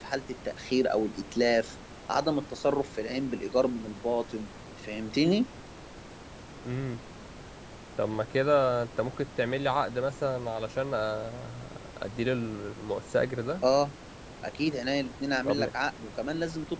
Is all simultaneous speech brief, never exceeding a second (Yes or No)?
Yes